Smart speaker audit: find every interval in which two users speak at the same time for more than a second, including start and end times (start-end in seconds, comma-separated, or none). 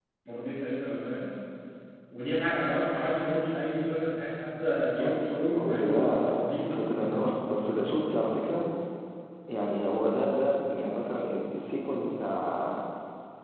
5.0-6.2